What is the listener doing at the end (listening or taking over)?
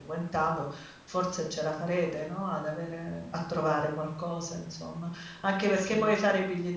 listening